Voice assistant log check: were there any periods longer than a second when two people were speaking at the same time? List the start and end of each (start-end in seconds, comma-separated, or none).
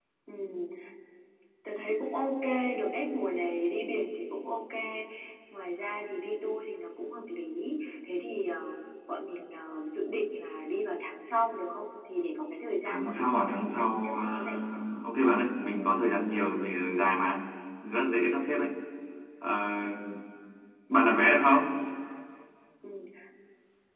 12.8-14.6